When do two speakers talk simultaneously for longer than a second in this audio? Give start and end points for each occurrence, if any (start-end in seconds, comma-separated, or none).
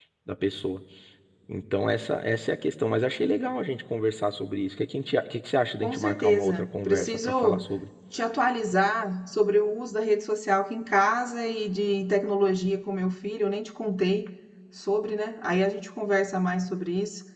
5.8-7.6